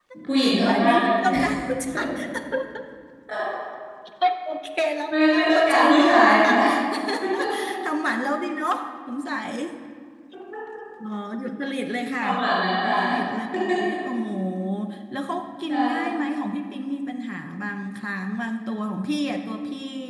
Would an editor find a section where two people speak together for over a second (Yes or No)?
Yes